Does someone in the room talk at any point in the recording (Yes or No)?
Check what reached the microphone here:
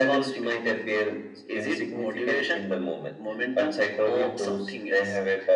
No